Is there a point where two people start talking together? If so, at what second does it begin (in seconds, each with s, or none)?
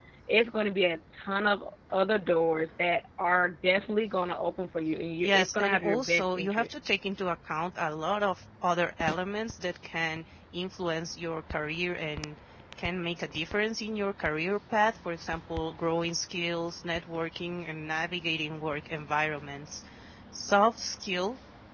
5.2 s